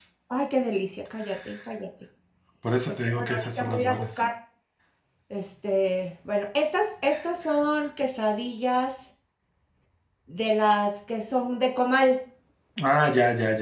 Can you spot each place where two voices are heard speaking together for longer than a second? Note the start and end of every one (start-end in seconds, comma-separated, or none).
2.9-4.2